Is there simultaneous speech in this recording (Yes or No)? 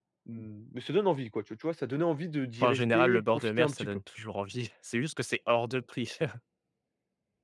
Yes